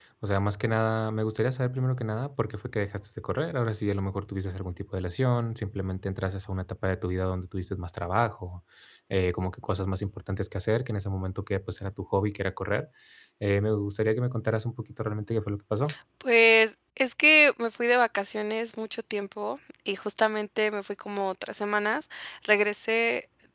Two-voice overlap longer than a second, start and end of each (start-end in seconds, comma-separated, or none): none